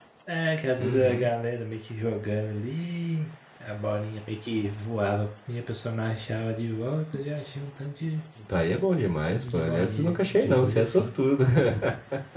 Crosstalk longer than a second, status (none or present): present